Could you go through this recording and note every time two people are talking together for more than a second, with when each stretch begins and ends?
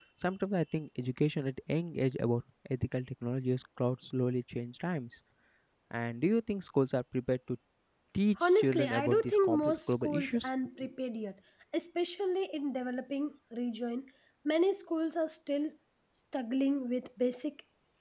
8.4-10.5

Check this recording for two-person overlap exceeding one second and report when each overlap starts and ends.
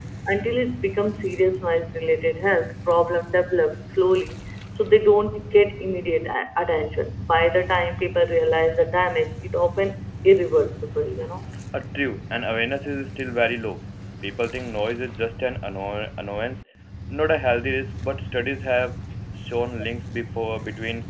none

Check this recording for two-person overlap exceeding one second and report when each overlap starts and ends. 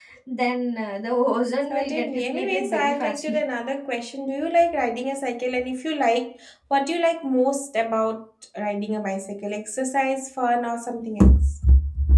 1.7-3.4

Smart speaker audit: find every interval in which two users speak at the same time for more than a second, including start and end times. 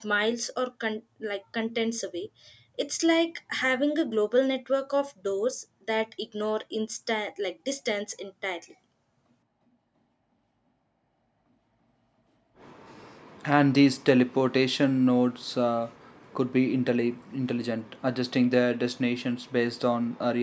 none

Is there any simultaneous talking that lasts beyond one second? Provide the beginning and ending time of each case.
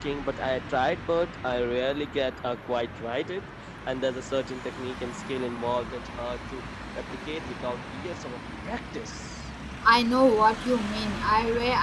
none

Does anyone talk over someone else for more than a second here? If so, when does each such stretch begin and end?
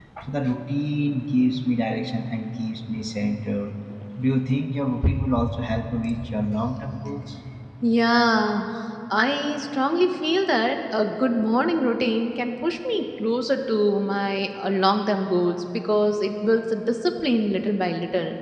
none

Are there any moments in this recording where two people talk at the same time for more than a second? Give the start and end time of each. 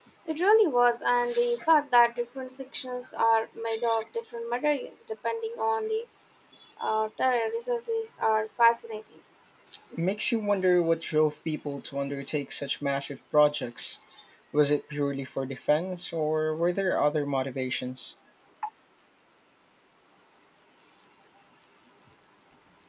none

